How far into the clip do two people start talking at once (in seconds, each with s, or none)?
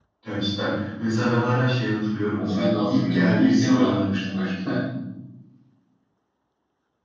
2.3 s